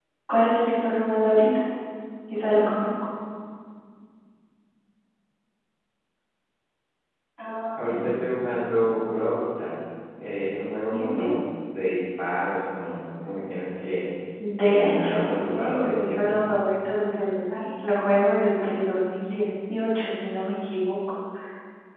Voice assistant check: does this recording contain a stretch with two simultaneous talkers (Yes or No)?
Yes